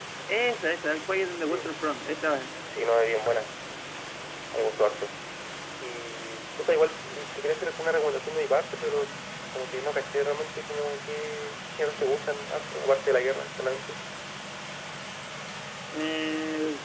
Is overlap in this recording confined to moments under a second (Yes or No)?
Yes